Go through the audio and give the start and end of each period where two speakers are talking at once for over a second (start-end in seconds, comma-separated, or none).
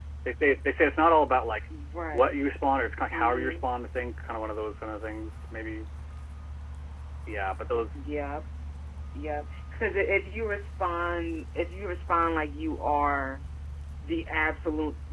none